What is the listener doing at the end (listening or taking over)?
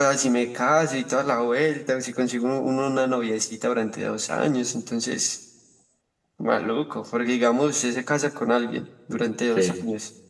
listening